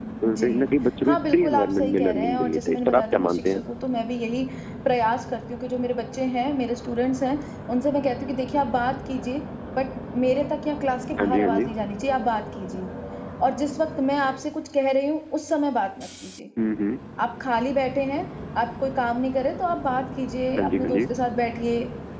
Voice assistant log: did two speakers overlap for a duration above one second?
Yes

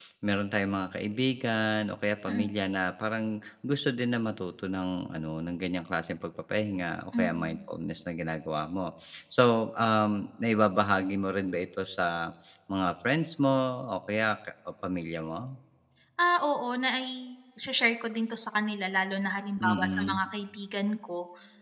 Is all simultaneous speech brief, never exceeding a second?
Yes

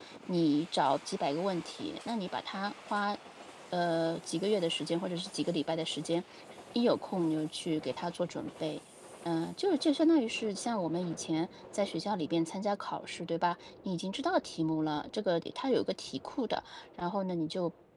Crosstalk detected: No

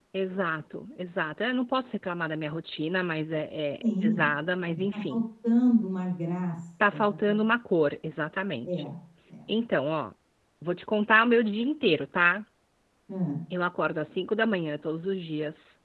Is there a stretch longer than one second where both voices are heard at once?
No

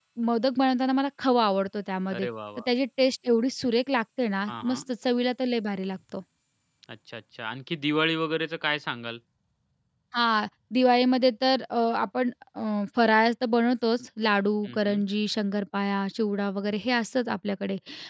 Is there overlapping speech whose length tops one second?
No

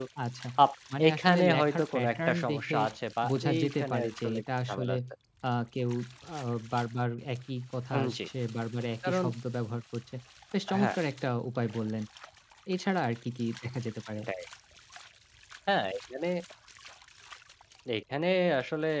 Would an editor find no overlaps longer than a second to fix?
No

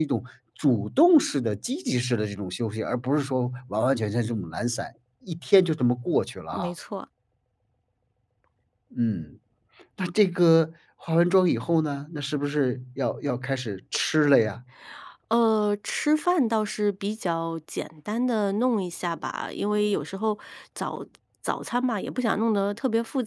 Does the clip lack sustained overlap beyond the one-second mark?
Yes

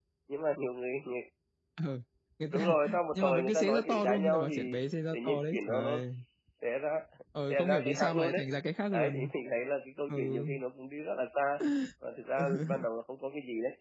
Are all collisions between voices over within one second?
No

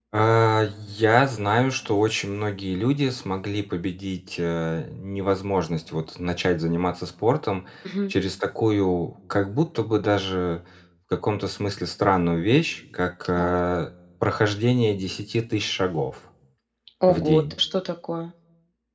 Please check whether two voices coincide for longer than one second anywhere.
No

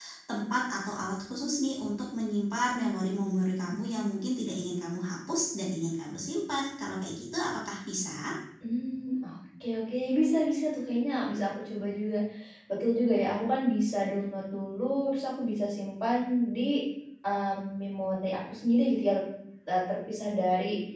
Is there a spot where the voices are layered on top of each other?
No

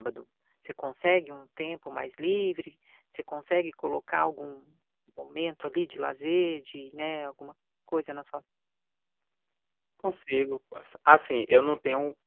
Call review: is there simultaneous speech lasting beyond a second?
No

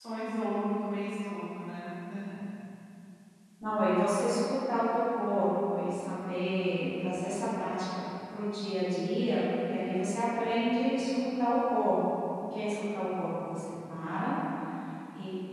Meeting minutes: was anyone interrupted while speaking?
No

